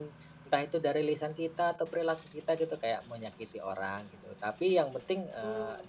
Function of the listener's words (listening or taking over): listening